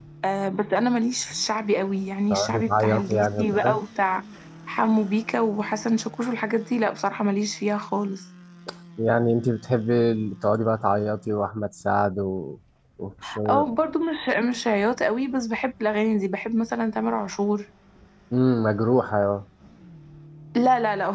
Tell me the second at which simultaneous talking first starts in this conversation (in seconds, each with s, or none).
2.3 s